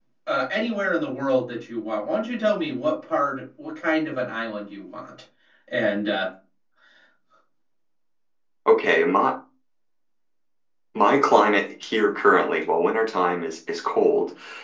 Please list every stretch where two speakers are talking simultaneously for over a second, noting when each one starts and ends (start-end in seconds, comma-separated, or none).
none